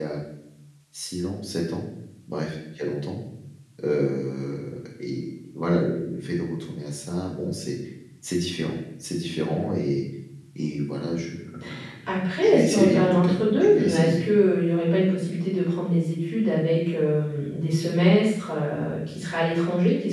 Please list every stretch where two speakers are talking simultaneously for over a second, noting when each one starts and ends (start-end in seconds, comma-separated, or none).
12.4-14.2